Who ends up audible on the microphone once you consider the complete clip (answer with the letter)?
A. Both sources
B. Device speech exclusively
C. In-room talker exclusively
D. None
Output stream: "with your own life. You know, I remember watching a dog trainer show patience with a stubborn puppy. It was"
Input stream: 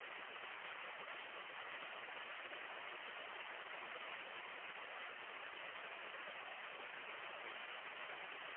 D